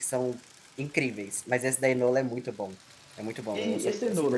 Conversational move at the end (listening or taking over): taking over